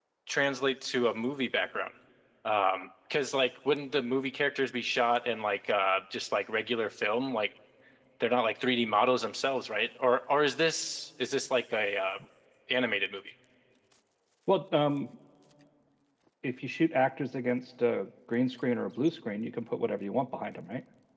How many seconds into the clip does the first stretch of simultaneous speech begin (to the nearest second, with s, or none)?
none